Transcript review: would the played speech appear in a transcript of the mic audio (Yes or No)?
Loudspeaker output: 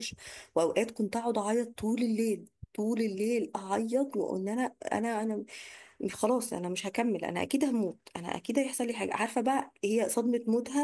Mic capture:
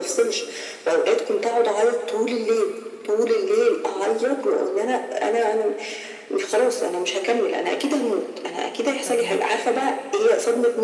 Yes